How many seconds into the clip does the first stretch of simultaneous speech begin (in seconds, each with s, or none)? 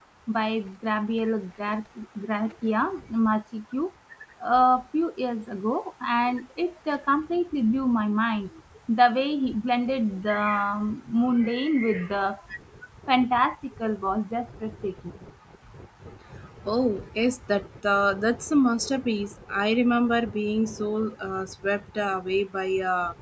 none